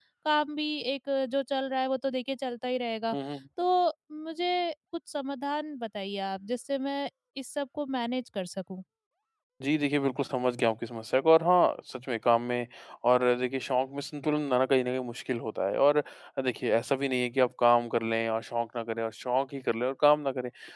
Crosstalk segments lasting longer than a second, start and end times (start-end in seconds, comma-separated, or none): none